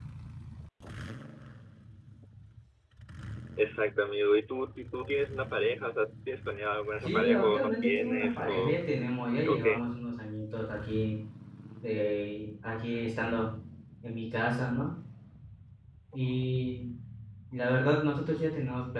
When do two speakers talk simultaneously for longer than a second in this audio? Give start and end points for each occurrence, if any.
7.0-8.8

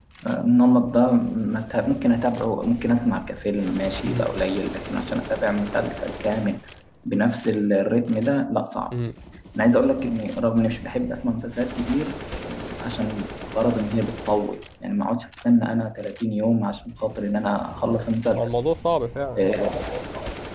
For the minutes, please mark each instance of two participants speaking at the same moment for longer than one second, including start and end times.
none

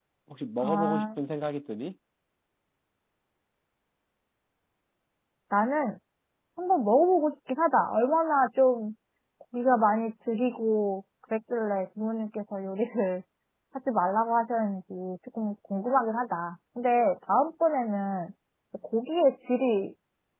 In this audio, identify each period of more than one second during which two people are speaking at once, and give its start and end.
none

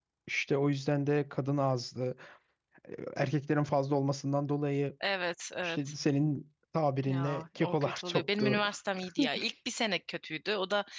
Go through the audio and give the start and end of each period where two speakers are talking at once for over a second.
7.1-8.6

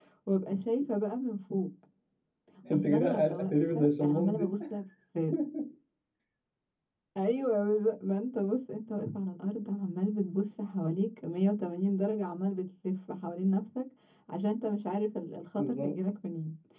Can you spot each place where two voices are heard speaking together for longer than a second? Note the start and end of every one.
2.7-4.5

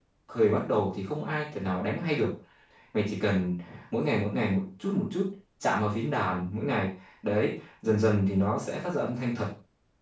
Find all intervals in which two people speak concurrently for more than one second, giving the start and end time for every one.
none

